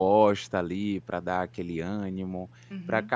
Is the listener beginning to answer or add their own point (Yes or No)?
No